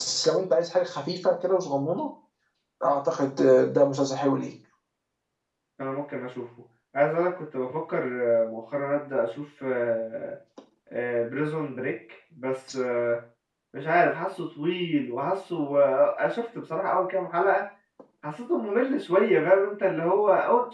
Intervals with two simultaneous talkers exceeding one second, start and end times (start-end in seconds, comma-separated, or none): none